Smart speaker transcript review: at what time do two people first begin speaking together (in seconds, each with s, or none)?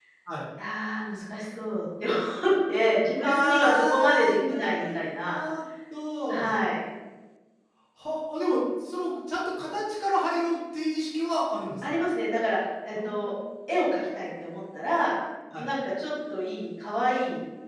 3.2 s